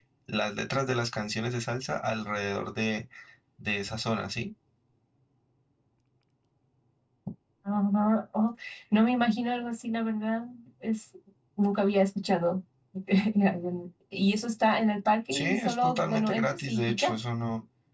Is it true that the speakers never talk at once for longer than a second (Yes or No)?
No